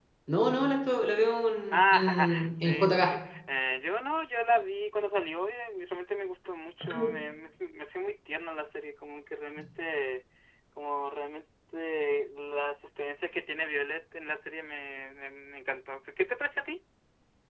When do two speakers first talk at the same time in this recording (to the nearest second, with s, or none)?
2 s